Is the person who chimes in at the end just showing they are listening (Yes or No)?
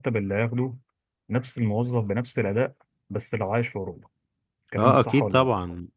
No